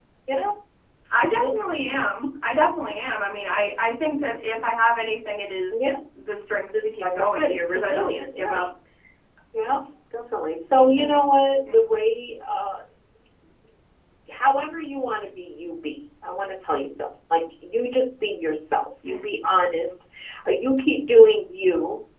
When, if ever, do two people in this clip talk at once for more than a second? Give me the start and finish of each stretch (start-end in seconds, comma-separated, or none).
7.0-8.7